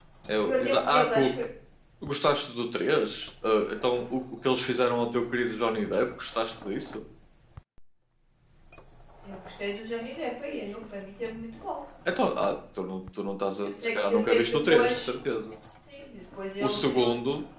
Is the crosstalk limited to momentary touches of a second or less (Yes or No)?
No